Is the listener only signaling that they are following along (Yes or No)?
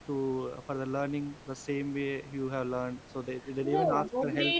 No